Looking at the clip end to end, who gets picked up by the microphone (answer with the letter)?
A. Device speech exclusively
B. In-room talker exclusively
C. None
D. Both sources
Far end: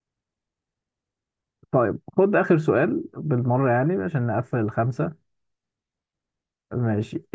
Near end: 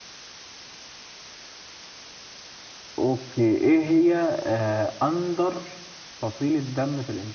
B